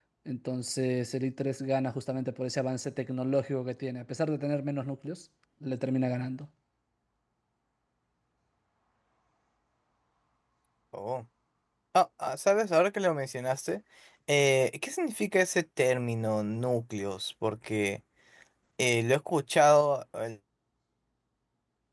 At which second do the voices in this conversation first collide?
none

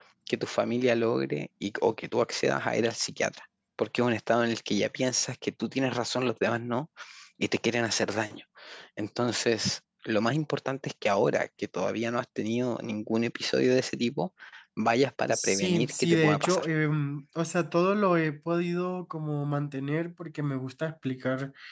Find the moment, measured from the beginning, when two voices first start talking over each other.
15.3 s

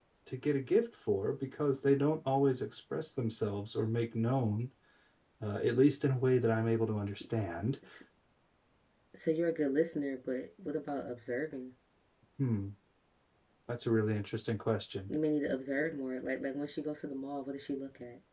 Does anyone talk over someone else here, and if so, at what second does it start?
none

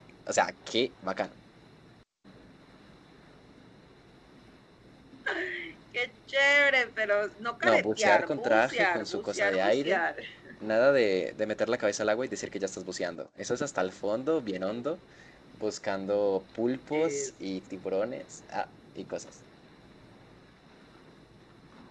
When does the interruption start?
7.6 s

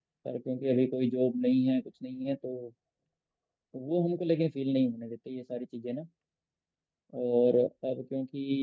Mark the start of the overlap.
none

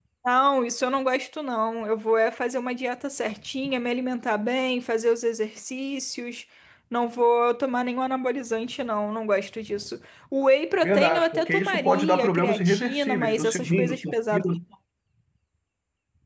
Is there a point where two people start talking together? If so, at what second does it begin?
10.8 s

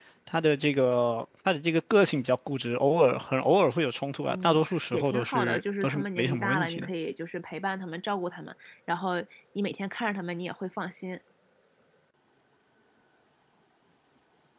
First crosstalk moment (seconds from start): 4.3 s

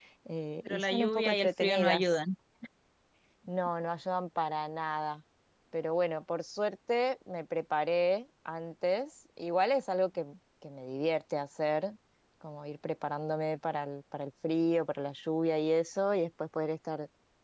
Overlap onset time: 0.7 s

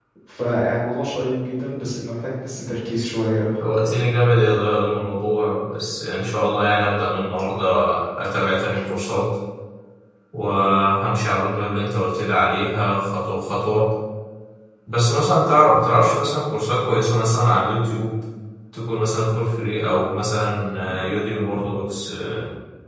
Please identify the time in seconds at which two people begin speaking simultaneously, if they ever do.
none

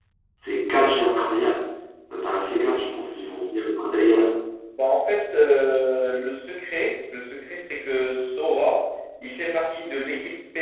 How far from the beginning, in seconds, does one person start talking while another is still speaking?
none

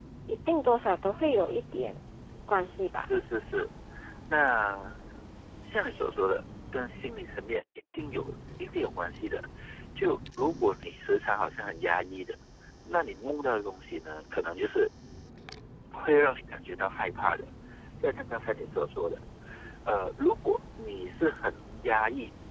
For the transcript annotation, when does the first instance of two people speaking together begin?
none

